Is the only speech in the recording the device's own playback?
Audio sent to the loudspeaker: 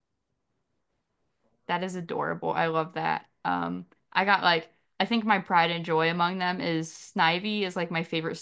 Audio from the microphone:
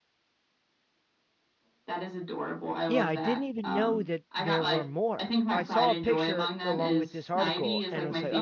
No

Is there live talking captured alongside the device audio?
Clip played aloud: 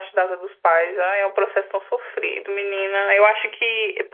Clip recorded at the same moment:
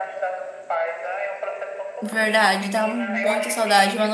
Yes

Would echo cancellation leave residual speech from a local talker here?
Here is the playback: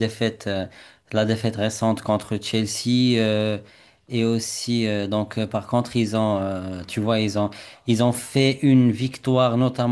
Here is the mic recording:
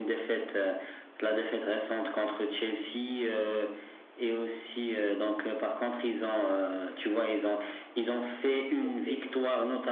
Yes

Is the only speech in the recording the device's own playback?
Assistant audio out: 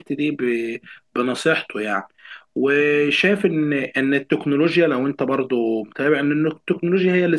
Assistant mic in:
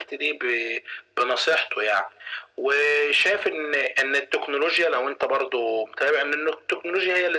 Yes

